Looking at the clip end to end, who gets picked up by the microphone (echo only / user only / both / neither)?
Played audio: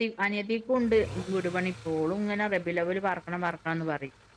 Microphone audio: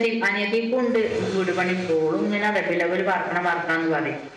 echo only